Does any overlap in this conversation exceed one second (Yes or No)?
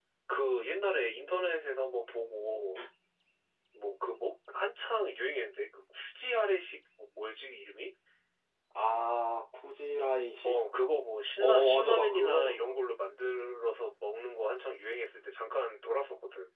Yes